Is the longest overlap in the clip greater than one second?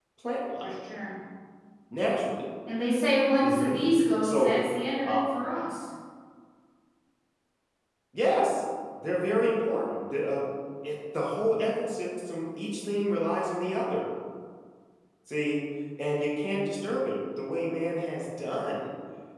No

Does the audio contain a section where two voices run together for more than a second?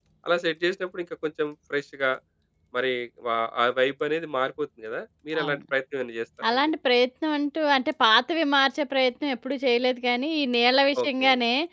No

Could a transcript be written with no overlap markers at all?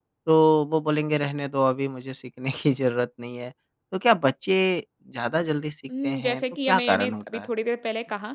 No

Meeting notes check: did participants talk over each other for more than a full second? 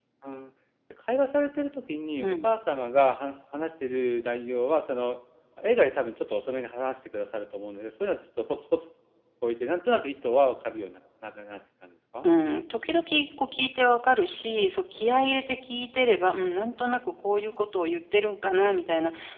No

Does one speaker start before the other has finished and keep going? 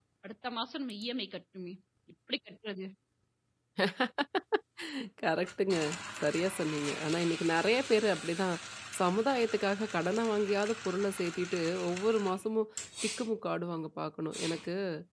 No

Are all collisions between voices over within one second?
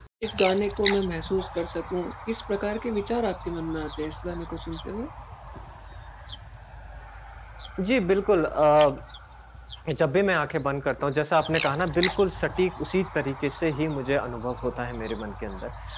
Yes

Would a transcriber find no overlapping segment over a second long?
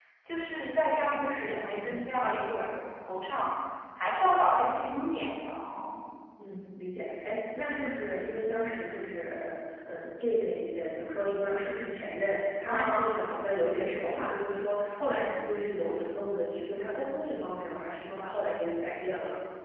No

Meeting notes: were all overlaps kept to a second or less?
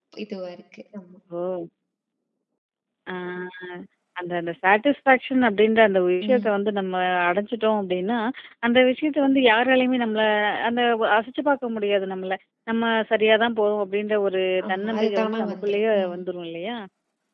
No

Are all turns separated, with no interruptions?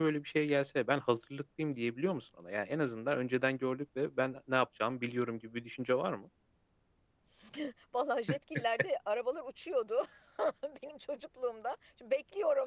Yes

